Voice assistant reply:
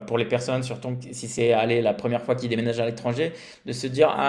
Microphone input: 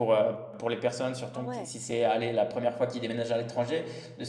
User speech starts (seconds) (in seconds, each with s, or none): 1.3 s